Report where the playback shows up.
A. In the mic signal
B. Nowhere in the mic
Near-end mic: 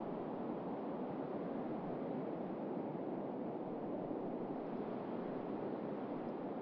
B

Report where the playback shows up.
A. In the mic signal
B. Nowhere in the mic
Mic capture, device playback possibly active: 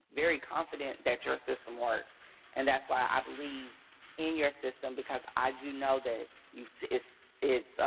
B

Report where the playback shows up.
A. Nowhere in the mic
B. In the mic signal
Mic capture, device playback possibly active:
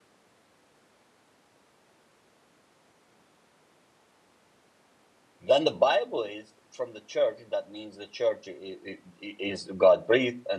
A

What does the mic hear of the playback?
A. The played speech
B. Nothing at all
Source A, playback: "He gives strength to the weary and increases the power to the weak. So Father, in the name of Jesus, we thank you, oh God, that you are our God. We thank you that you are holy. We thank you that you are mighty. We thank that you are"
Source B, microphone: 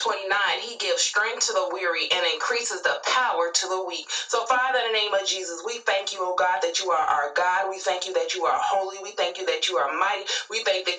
A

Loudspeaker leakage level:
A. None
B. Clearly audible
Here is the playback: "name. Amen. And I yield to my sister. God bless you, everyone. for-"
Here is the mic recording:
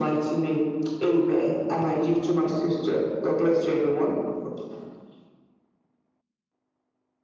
B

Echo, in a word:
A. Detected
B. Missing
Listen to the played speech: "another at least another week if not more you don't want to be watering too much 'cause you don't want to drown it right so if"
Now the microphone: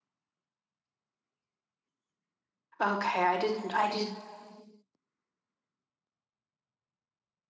B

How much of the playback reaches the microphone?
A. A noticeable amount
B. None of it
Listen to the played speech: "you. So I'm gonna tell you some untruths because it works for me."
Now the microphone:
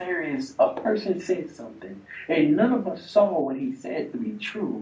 B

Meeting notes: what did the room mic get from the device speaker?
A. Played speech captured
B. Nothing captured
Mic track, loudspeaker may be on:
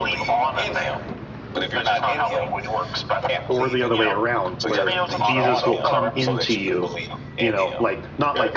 A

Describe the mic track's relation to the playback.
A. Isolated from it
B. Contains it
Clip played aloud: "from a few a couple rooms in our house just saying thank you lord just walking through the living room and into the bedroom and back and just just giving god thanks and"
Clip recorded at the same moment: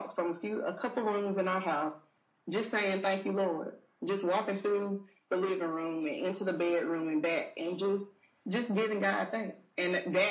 B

